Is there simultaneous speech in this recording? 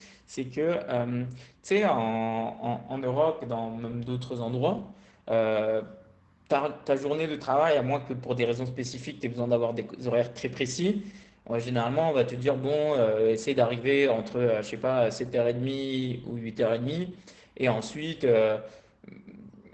No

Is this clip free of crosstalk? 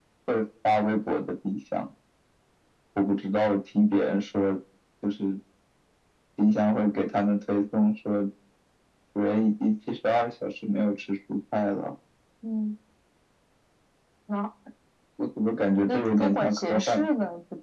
No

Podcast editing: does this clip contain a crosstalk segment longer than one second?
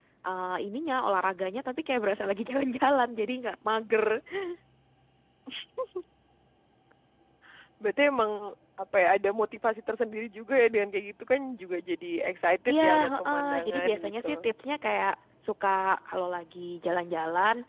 Yes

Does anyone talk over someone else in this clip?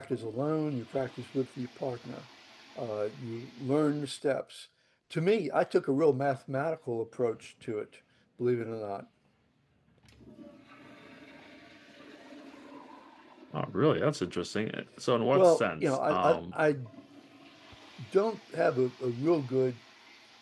Yes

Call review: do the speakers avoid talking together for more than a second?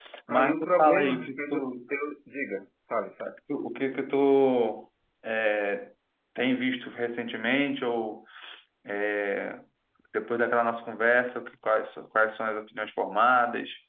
No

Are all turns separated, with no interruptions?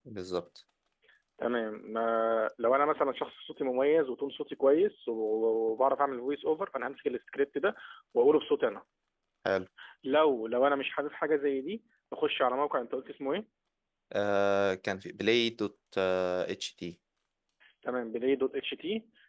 Yes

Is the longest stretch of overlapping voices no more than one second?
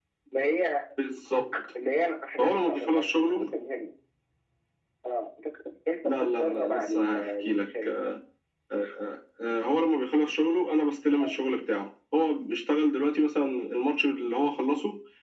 No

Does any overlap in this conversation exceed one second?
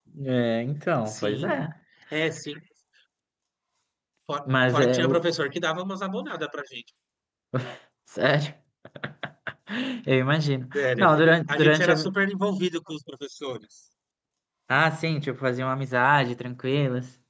Yes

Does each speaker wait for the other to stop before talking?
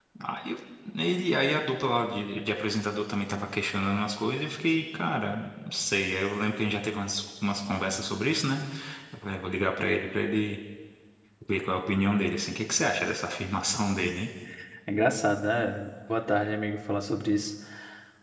Yes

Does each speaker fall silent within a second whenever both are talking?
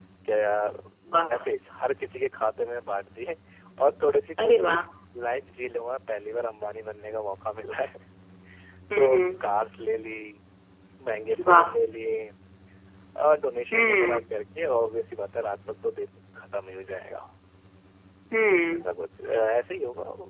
Yes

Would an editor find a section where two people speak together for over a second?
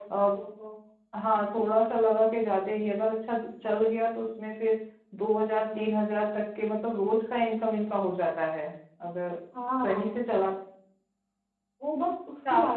No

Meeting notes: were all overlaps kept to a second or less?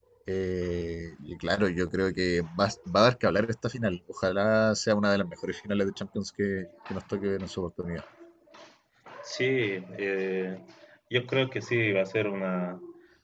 Yes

